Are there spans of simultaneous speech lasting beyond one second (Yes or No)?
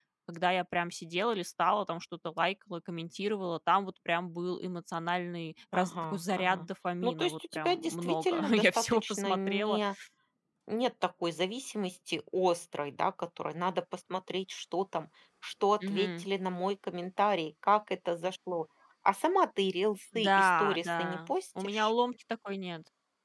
Yes